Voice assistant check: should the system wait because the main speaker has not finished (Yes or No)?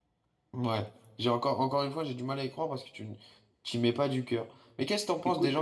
Yes